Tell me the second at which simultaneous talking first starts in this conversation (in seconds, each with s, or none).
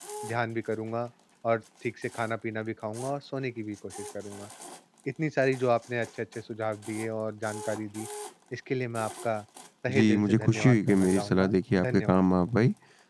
9.9 s